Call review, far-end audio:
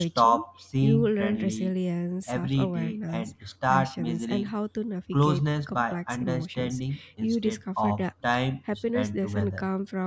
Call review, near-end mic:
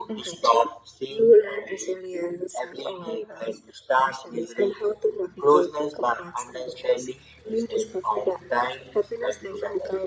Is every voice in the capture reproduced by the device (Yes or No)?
Yes